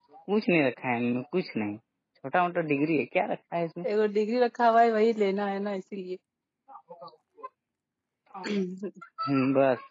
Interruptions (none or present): none